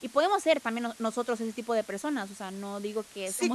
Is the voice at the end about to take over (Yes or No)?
Yes